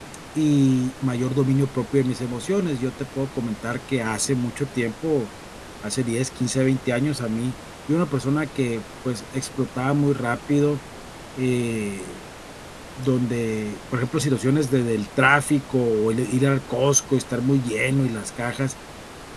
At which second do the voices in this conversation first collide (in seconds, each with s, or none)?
none